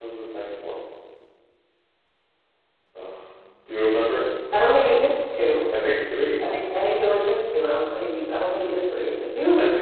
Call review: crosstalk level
none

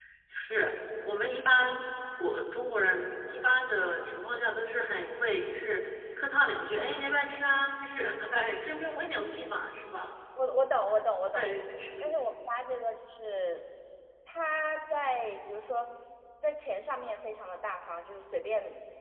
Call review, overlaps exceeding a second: none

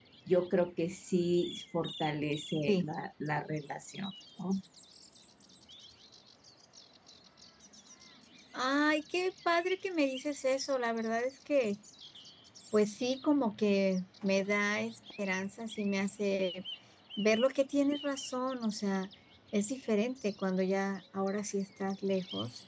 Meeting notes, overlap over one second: none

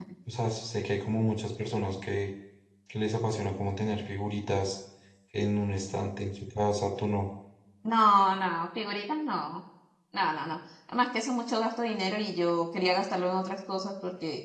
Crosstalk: none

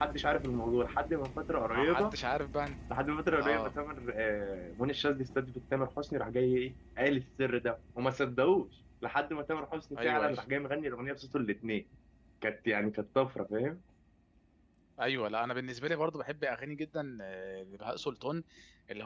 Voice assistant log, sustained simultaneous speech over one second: none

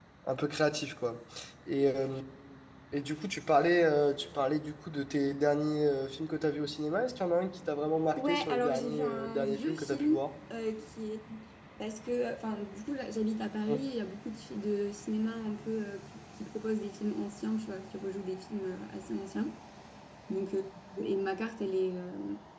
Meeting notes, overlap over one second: present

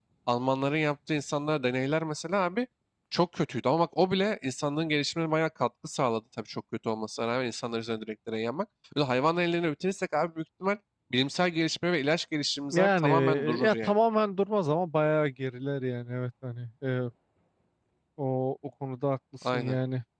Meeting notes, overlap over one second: present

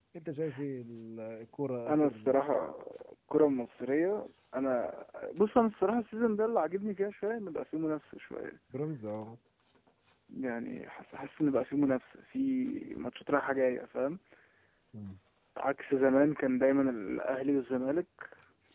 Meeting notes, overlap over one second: none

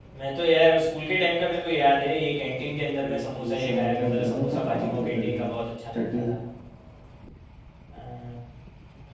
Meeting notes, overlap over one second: present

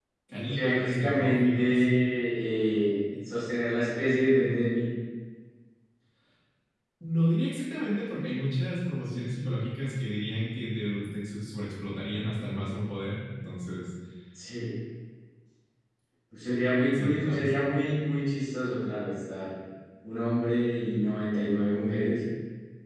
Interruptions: present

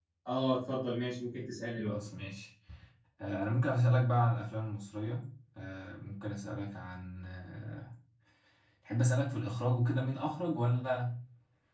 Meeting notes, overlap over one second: none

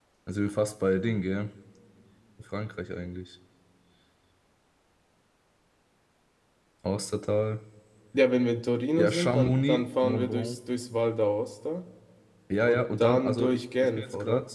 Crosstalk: present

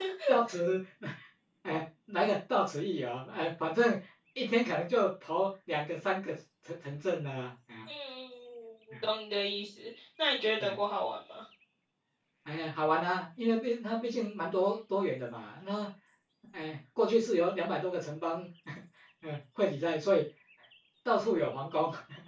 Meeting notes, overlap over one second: none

